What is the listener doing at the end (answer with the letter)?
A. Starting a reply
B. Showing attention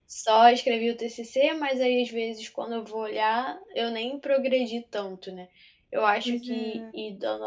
B